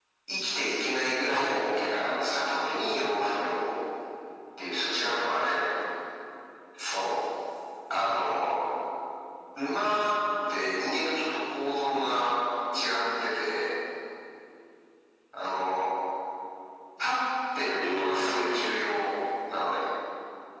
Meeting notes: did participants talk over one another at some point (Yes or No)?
Yes